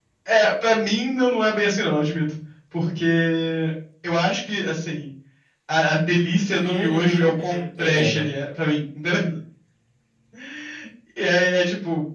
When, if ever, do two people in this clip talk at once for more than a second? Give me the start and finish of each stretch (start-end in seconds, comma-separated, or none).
6.5-8.3